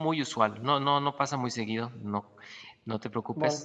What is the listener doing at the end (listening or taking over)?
taking over